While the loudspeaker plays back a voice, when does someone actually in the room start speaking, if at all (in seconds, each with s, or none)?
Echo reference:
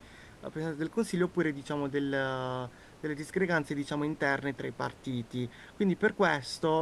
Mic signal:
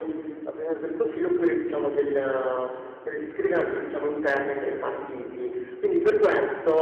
none